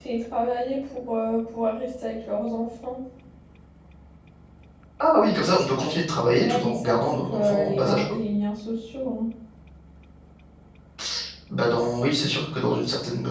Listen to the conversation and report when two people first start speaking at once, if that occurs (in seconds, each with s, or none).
6.4 s